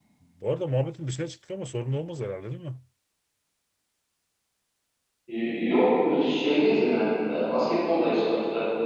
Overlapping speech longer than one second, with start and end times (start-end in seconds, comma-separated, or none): none